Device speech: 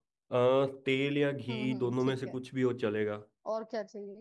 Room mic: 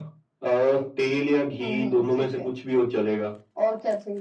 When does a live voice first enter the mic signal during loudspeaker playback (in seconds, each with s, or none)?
none